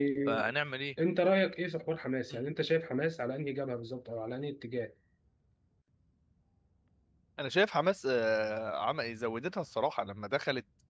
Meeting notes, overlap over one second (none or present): none